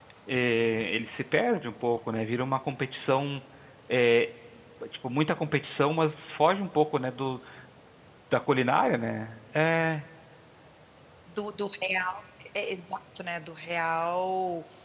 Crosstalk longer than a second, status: none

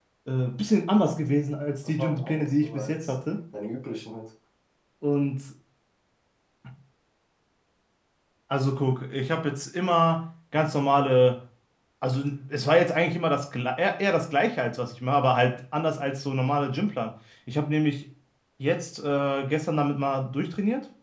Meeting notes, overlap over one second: present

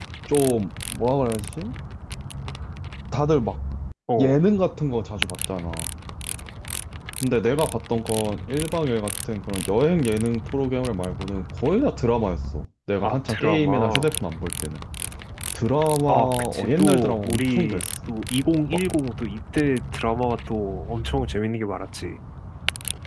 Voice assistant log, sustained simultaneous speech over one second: present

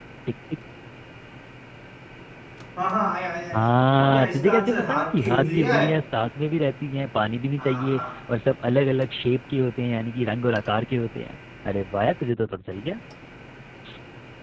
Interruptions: present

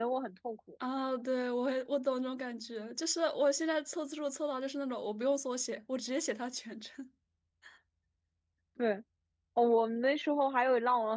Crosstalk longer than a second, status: none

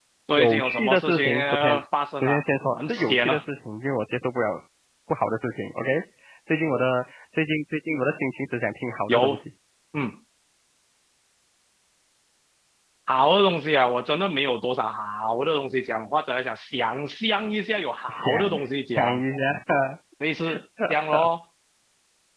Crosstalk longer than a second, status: present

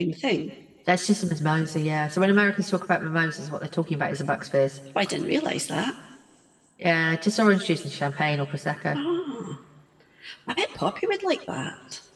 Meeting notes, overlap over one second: none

